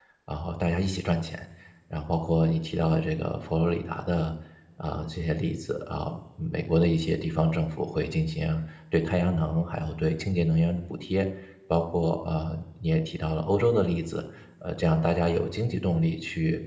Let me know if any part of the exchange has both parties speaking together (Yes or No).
No